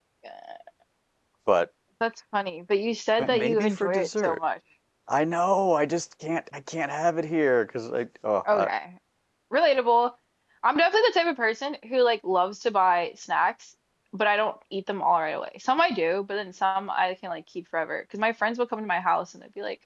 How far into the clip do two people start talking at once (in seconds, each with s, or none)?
3.2 s